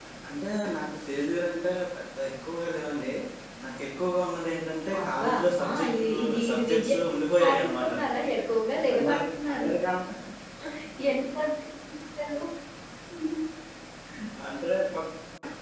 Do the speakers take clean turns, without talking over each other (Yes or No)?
No